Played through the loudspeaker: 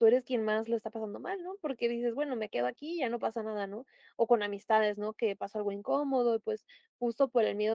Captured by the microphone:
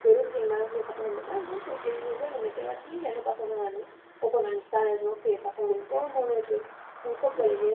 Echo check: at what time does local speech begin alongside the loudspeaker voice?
none

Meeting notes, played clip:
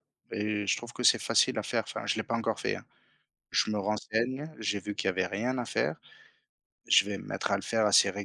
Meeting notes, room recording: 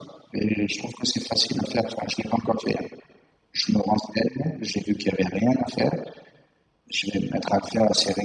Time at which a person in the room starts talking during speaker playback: none

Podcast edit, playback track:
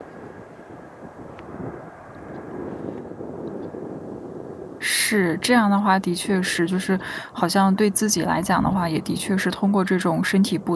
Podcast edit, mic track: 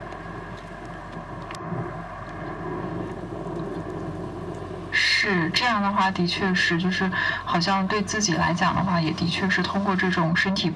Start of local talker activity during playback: none

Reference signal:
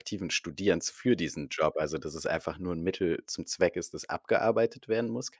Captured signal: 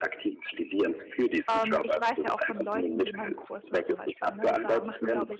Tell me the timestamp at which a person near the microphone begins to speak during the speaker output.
1 s

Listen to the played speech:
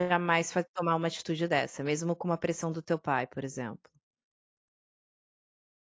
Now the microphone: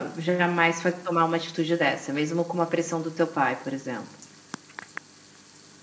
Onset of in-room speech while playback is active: none

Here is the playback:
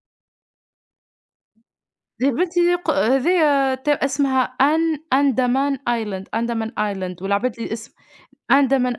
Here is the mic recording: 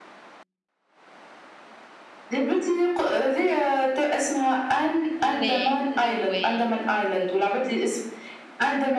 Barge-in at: 5 s

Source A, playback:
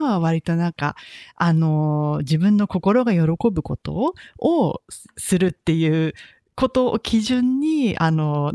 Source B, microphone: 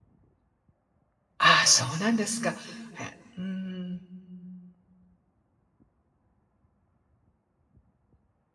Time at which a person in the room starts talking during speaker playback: 1 s

